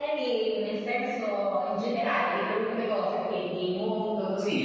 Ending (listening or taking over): taking over